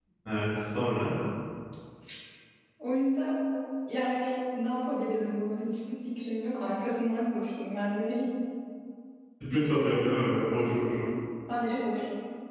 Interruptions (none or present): present